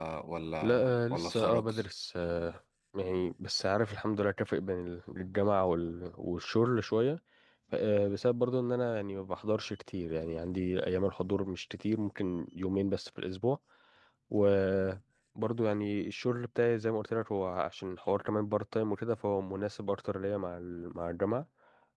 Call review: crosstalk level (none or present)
present